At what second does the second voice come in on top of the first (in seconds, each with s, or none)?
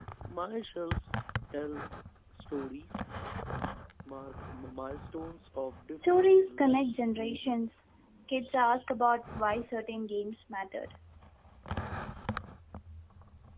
5.9 s